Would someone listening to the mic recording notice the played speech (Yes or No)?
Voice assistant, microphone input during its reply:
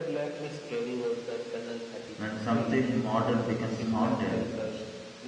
Yes